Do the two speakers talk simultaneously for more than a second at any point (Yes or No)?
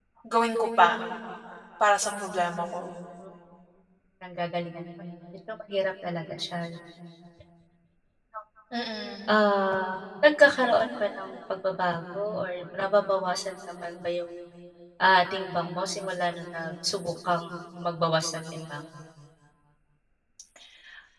No